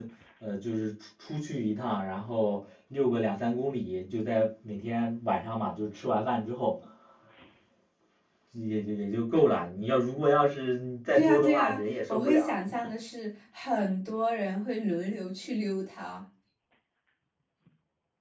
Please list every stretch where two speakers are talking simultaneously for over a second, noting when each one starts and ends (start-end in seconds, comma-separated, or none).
11.1-12.6